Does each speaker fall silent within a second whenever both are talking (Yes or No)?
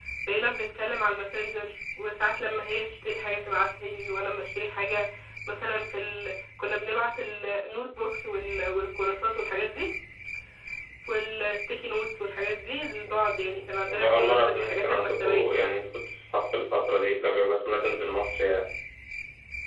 No